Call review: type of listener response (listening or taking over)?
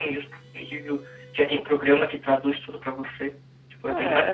taking over